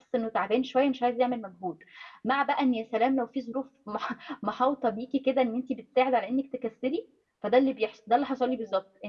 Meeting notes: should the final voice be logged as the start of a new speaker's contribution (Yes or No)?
No